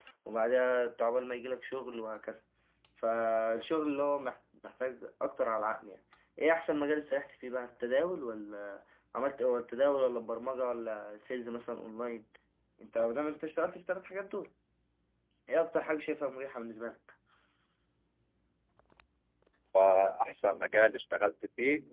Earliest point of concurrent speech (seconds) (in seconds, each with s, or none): none